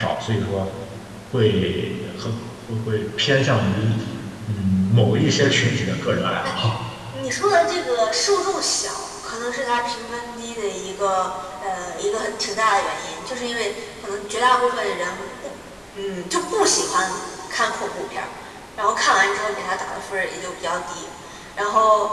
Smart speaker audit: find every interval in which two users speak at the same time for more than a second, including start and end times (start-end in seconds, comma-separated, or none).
none